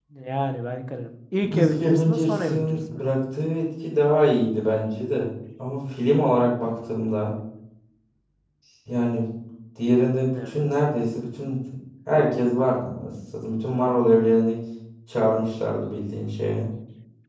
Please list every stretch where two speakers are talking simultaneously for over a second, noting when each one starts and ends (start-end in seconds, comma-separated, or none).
1.4-3.0